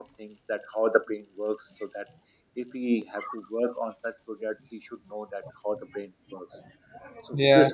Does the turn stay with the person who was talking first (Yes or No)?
Yes